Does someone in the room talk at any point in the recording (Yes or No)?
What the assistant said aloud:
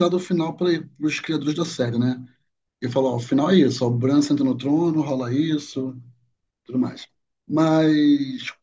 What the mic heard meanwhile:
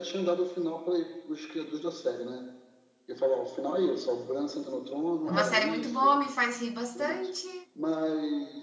Yes